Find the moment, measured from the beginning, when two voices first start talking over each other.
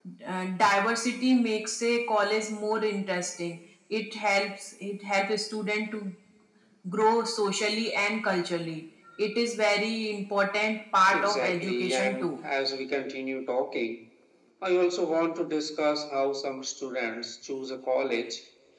11.1 s

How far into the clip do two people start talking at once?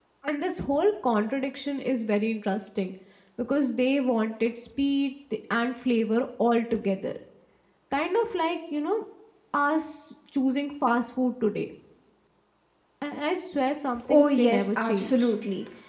14.1 s

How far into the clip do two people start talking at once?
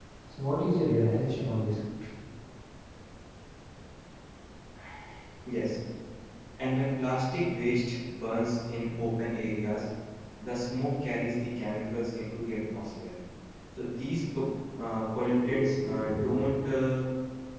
none

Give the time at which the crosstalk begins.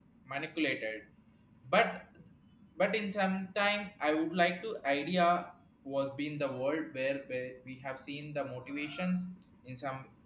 none

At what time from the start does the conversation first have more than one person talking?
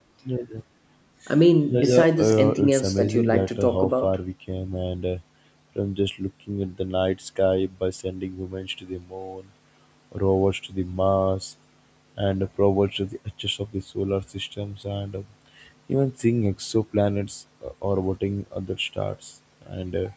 1.7 s

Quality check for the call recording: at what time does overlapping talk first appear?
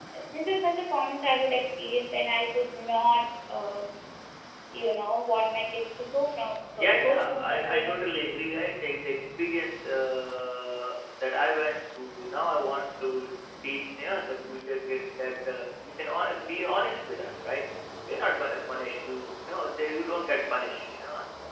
6.8 s

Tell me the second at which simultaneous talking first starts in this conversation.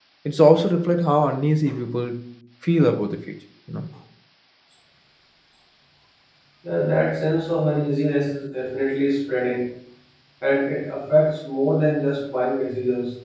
none

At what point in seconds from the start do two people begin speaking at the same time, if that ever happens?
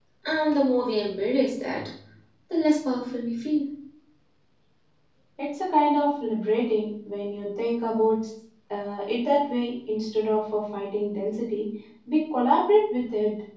none

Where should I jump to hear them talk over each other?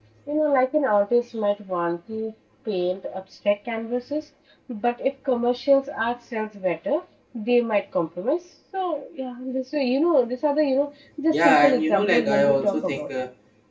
11.3 s

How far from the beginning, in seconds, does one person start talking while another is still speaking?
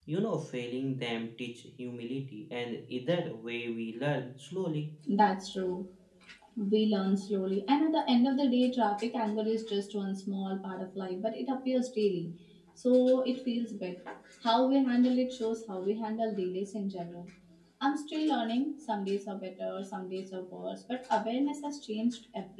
none

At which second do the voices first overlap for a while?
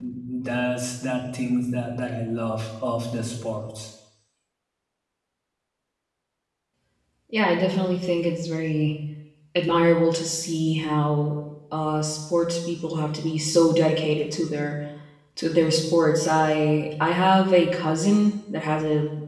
none

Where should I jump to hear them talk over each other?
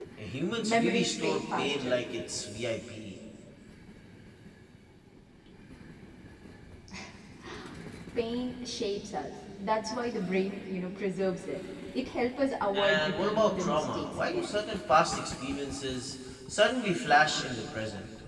0.6 s

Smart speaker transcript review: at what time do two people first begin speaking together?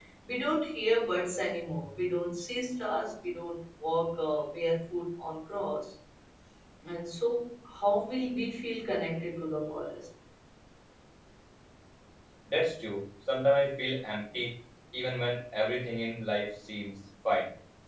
none

